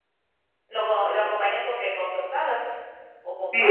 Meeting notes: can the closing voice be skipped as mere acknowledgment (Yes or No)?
No